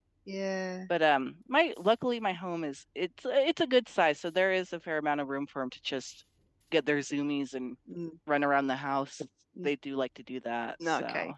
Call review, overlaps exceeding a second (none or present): none